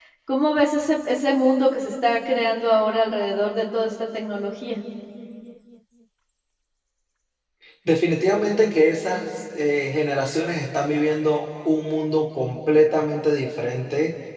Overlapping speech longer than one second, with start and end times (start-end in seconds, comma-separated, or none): none